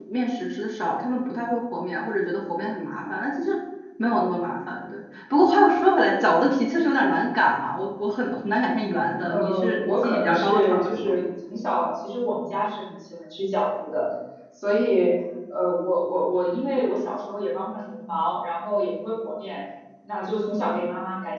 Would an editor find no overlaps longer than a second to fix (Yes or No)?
No